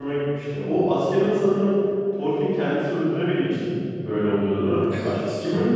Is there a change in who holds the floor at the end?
Yes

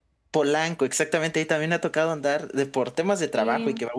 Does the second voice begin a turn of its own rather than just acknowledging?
No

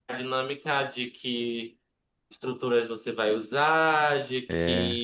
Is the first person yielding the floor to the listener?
No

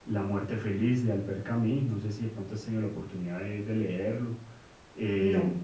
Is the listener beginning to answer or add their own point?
No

